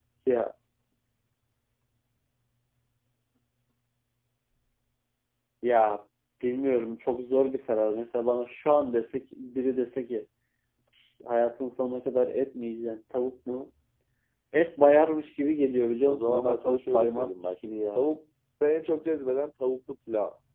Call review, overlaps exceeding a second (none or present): present